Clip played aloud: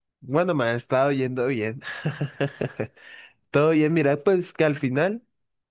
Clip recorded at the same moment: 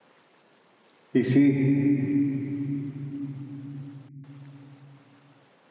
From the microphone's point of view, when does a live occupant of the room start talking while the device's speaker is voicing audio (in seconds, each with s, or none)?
1.1 s